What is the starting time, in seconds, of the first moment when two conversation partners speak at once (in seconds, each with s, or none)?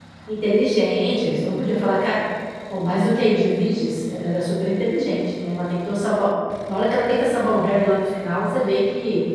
none